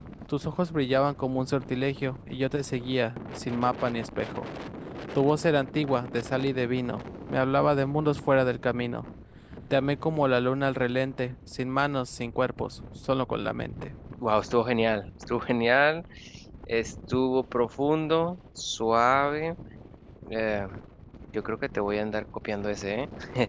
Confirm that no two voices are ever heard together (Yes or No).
Yes